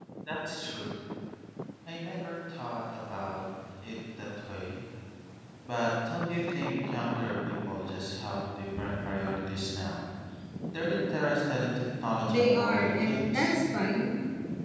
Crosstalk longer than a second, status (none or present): present